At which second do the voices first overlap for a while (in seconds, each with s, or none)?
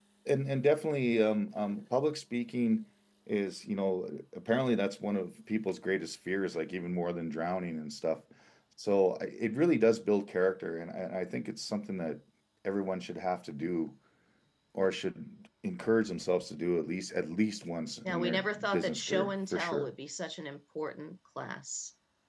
18.1 s